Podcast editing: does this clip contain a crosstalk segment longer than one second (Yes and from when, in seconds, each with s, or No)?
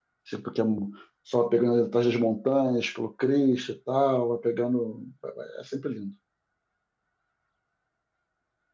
No